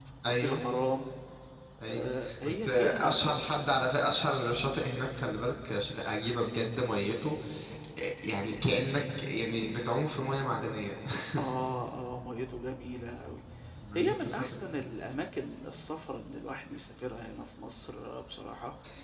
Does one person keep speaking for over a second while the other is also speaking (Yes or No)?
Yes